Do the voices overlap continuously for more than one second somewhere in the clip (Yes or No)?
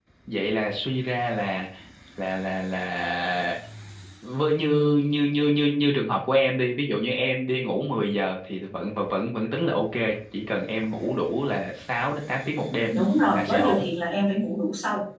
No